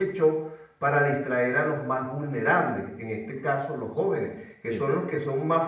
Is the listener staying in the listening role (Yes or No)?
Yes